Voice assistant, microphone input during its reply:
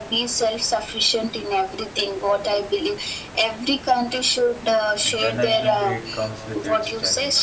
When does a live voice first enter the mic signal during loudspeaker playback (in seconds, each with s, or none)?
5.0 s